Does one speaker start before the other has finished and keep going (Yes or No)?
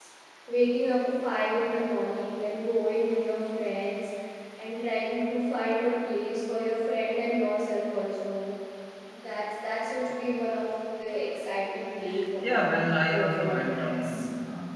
Yes